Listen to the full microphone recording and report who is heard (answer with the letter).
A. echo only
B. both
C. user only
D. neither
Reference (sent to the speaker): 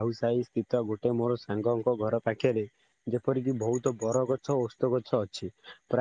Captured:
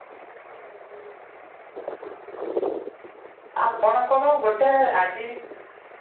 C